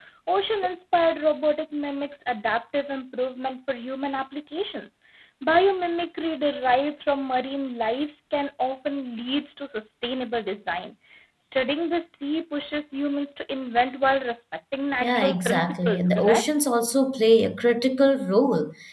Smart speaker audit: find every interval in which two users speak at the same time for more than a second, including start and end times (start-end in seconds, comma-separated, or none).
15.0-16.5